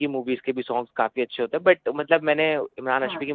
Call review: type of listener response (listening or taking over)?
listening